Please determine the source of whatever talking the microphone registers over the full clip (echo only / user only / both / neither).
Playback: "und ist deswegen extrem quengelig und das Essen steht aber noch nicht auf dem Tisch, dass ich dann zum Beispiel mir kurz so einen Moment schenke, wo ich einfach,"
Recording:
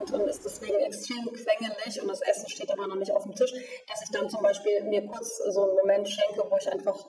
echo only